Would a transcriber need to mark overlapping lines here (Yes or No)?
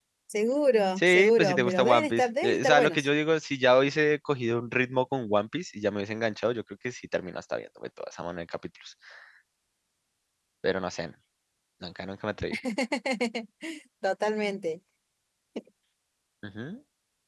Yes